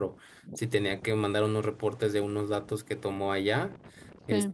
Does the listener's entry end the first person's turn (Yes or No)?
No